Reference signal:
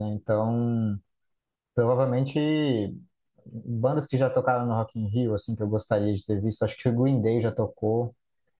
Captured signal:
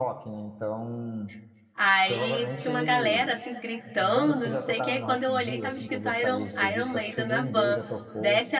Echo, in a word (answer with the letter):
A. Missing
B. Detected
B